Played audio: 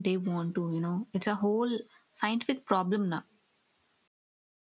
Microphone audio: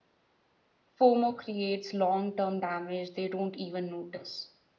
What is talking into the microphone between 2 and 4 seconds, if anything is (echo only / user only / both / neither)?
user only